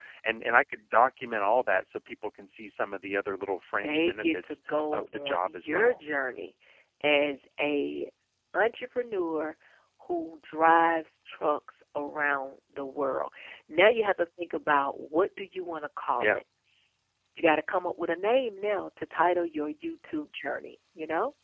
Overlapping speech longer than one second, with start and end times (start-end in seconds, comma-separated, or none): 3.8-6.0